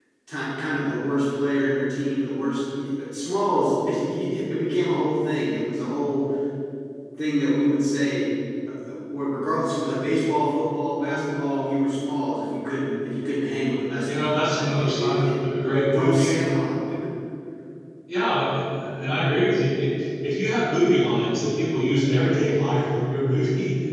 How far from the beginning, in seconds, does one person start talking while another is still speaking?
14.0 s

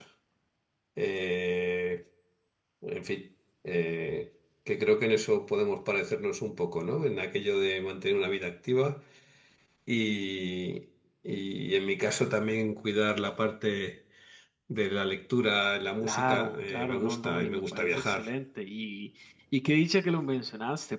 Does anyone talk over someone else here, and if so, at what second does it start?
16.0 s

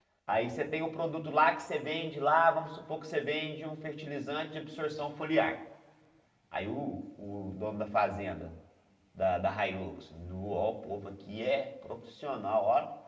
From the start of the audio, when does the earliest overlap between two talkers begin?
none

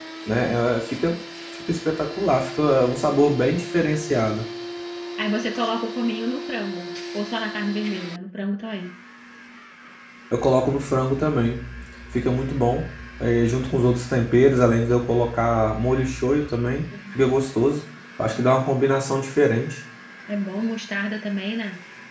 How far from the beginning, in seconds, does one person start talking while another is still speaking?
none

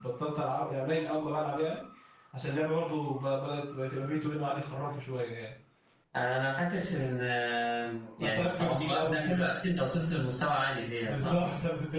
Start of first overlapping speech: 8.2 s

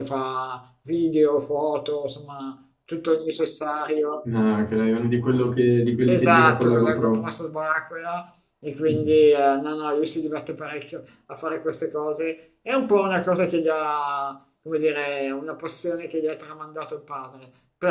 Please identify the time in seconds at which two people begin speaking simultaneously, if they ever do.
6.1 s

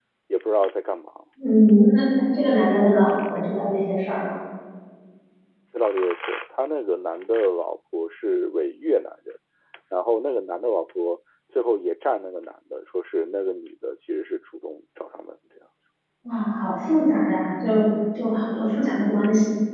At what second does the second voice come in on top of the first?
none

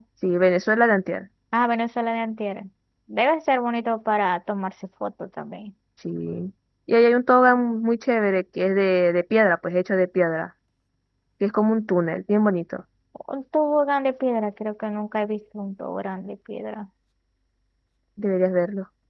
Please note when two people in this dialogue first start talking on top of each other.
none

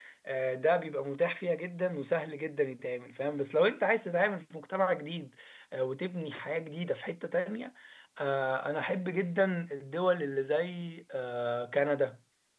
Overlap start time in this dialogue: none

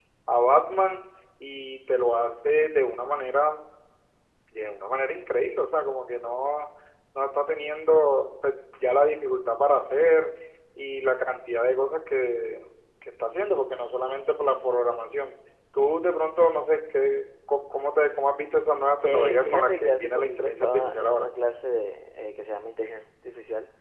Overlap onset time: 19.0 s

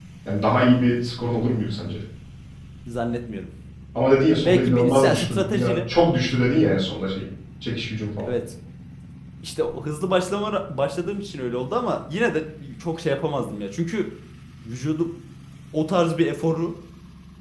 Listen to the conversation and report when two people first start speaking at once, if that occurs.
4.5 s

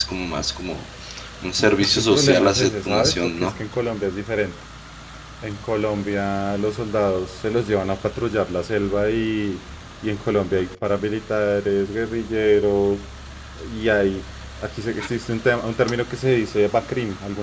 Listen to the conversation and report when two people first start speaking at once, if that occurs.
1.8 s

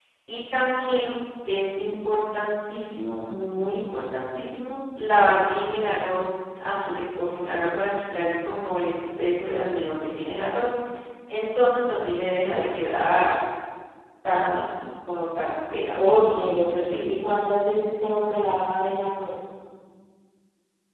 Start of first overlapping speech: 16.0 s

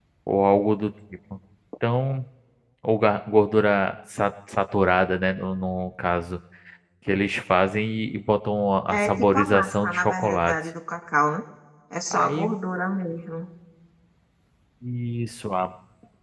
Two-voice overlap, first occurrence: 8.9 s

